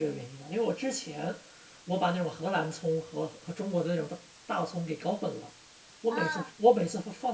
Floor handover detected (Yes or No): No